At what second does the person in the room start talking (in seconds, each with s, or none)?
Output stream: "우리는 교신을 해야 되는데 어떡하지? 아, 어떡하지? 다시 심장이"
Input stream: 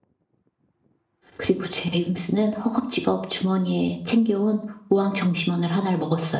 1.4 s